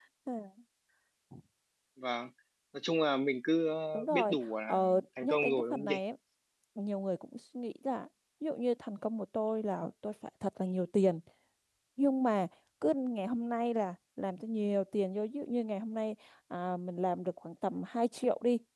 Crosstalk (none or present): present